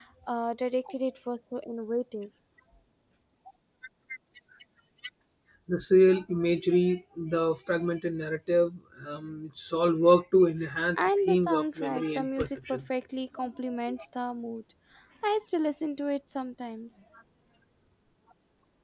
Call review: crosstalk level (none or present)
present